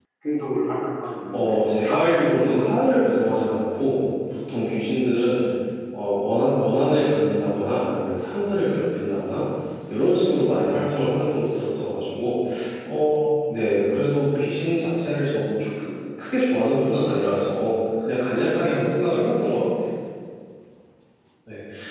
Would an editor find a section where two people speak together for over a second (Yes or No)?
Yes